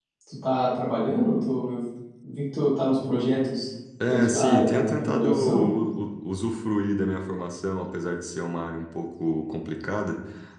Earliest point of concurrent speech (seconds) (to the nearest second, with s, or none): 4 s